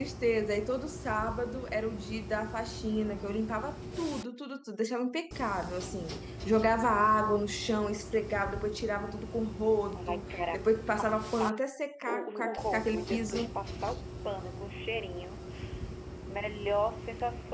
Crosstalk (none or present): present